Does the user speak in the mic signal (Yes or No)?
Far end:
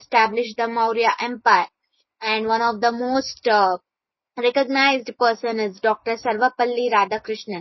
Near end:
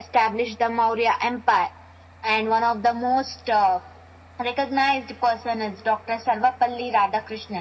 No